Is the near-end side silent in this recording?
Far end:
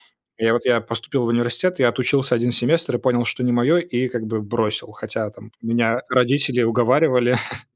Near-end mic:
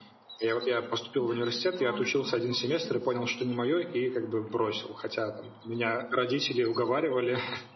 No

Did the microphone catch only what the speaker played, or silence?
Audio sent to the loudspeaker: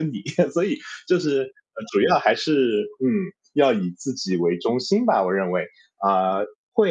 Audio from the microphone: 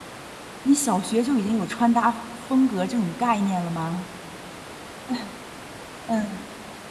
No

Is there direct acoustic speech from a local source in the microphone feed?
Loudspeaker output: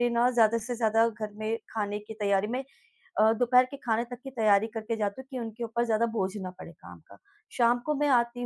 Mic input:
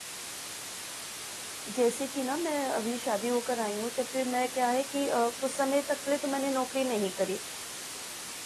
Yes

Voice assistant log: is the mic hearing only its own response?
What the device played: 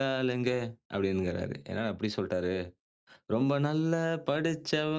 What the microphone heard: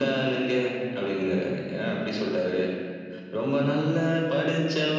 Yes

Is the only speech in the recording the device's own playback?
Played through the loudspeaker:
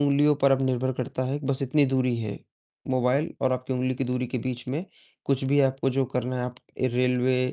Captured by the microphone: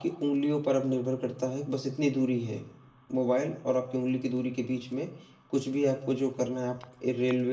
Yes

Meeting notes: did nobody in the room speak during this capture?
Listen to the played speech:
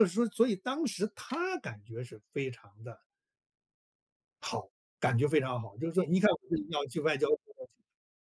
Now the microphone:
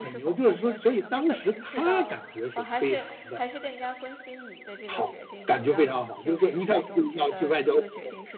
No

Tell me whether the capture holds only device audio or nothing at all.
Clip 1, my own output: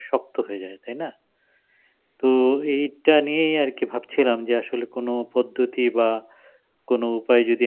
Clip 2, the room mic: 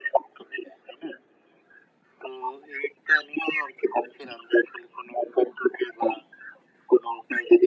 Yes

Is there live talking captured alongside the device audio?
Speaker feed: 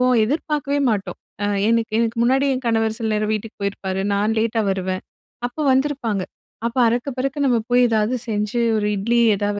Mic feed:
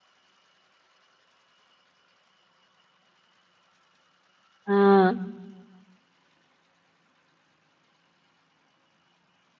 Yes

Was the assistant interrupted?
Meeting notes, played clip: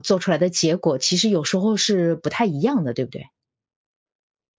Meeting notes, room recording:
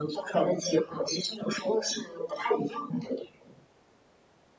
No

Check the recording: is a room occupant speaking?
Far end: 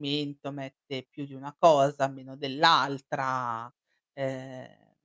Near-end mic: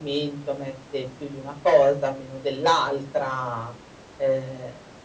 No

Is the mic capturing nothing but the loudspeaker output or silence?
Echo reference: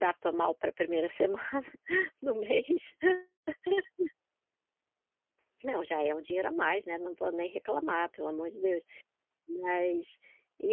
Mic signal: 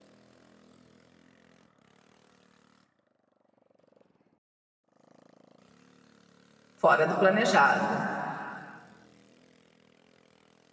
No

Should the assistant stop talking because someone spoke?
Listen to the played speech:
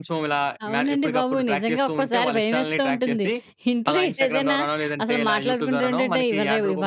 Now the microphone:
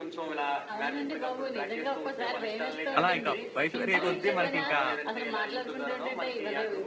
Yes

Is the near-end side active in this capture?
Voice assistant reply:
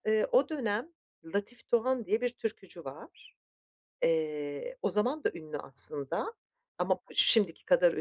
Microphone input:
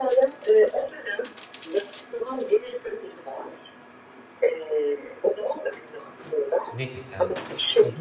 Yes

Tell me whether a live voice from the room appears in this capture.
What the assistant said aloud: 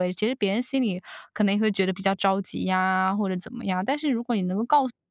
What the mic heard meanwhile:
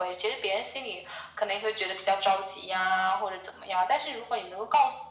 No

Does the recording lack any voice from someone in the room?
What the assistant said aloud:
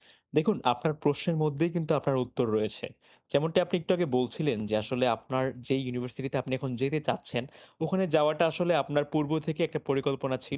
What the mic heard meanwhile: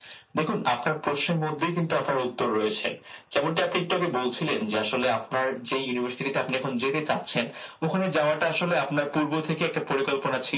Yes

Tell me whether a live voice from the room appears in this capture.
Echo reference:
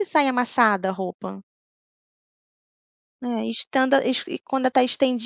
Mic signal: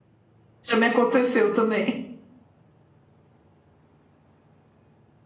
Yes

